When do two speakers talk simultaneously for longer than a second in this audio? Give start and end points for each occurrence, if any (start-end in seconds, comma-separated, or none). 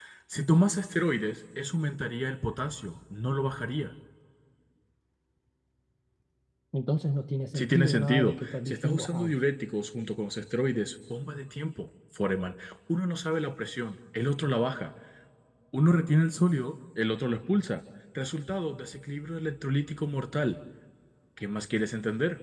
7.5-9.3